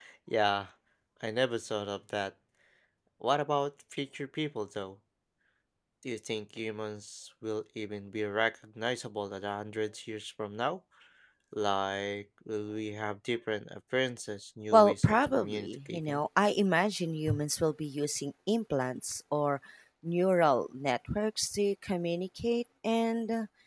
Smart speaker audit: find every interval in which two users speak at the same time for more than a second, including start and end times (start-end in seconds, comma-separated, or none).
14.7-16.2